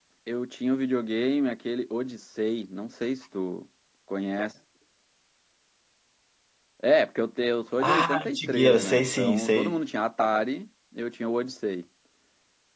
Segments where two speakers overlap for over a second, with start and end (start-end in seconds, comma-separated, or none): 7.8-9.8